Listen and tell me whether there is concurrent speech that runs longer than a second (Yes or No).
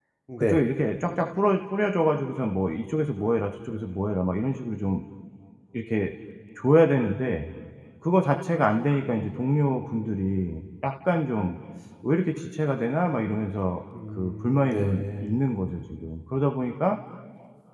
Yes